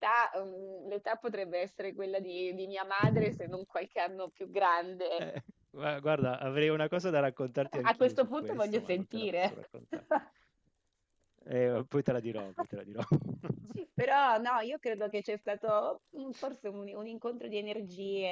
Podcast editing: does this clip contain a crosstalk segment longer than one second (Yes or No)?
Yes